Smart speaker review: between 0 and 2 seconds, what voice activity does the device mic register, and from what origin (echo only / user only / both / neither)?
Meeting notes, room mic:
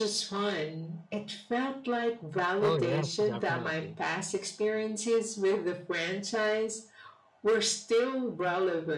echo only